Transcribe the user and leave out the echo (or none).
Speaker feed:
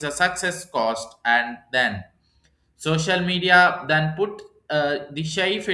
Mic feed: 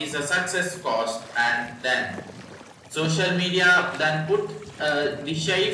none